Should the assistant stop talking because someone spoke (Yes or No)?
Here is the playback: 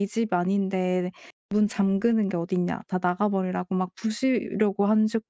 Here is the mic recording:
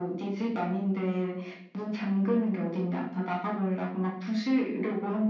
No